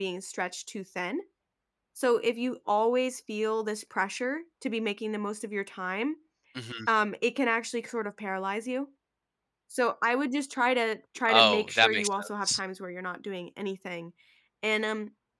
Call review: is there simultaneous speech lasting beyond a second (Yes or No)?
Yes